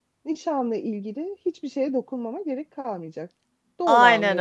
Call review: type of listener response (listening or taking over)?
taking over